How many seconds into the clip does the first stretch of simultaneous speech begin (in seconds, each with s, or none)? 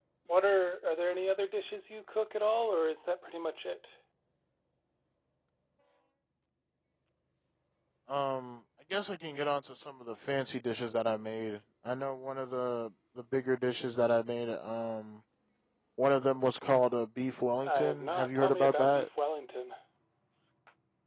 17.6 s